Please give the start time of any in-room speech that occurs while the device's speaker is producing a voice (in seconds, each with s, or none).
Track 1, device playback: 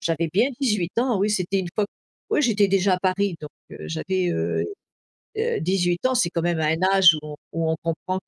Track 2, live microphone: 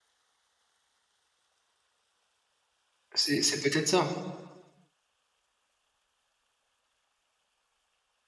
3.1 s